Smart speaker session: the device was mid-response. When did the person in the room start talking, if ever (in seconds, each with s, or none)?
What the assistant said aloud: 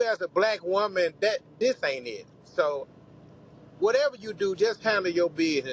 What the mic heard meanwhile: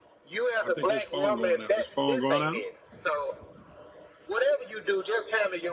0.6 s